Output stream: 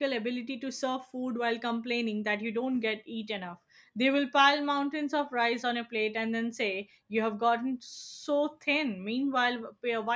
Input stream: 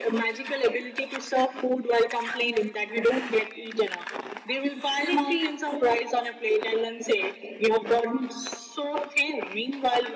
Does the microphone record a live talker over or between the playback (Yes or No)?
Yes